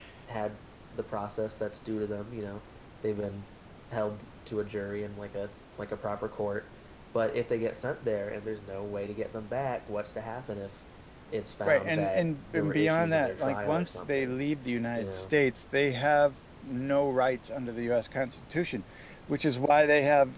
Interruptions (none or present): present